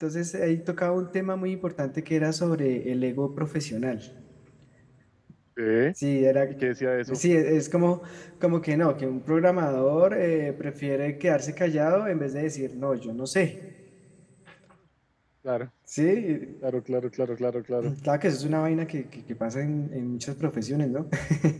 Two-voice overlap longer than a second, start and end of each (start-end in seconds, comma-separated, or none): none